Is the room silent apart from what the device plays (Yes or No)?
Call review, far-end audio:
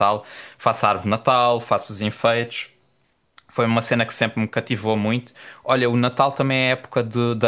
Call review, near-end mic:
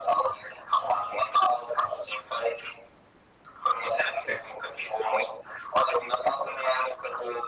Yes